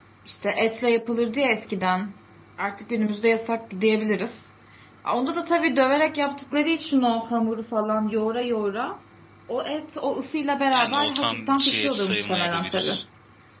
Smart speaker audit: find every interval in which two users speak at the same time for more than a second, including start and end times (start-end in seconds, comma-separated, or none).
10.7-13.0